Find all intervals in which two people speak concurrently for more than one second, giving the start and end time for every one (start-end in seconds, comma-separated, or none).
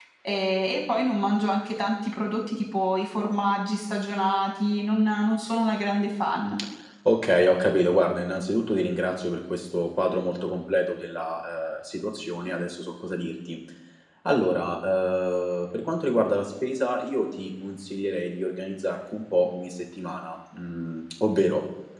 none